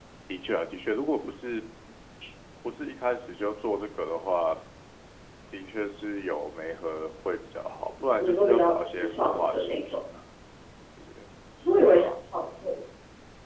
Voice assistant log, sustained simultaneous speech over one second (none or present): present